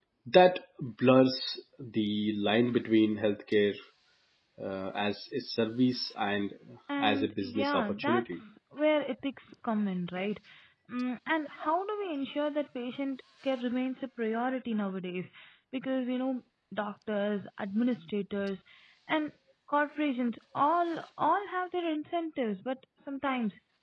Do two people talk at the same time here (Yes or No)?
Yes